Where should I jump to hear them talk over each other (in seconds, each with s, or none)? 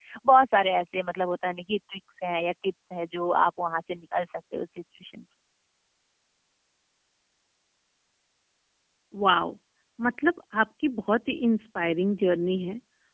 none